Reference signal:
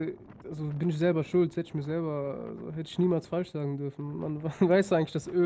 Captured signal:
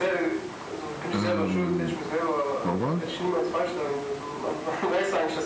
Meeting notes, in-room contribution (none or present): present